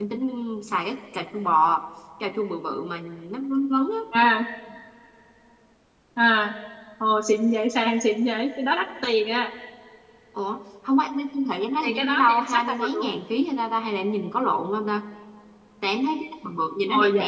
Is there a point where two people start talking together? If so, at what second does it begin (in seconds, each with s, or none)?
11.8 s